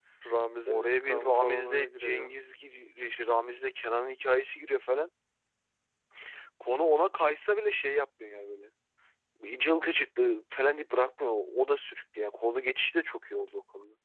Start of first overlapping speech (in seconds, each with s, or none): 0.7 s